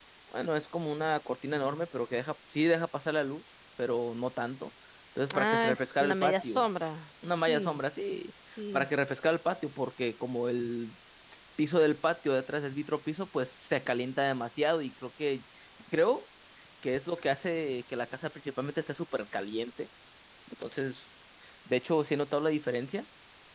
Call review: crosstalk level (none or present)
present